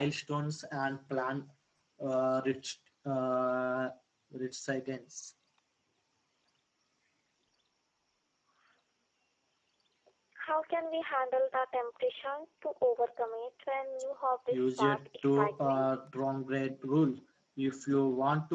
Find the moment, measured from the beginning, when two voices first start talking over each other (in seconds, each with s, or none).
14.5 s